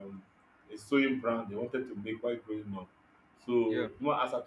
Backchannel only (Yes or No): Yes